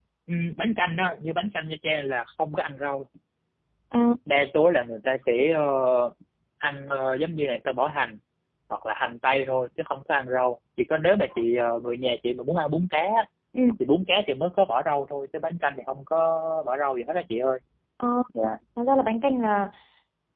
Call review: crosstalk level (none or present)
none